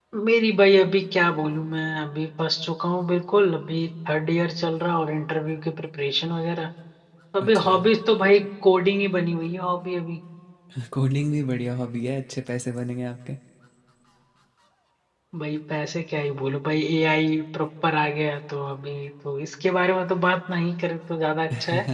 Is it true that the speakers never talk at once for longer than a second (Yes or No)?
Yes